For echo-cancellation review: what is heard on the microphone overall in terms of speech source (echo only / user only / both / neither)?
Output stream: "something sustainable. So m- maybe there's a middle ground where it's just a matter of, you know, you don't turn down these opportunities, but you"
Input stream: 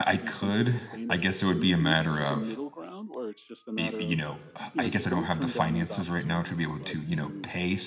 both